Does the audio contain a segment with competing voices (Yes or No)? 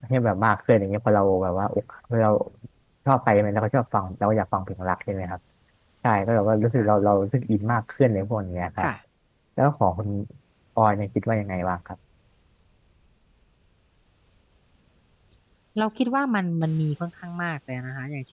No